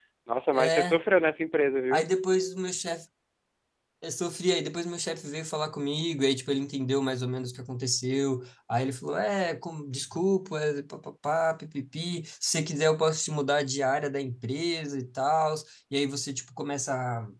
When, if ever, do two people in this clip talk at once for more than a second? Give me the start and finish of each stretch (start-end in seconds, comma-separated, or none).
none